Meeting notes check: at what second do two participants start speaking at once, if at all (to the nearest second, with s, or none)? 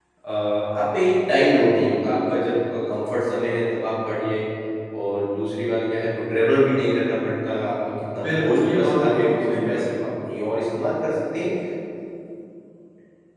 8 s